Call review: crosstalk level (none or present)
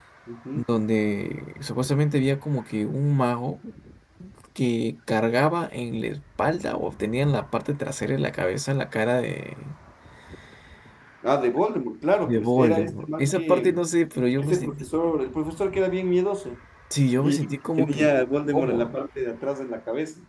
present